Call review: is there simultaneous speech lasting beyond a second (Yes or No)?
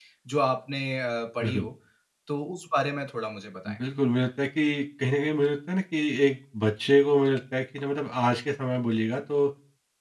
No